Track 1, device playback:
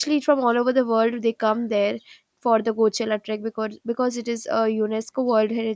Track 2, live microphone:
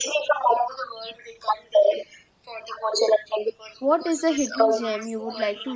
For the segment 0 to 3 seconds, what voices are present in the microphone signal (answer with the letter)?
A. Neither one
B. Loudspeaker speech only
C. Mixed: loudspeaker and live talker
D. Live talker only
B